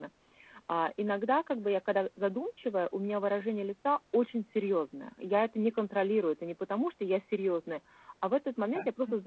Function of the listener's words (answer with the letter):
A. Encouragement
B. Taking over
A